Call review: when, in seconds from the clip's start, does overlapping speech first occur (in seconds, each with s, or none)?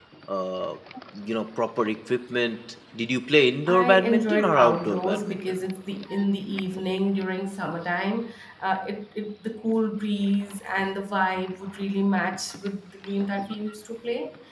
3.7 s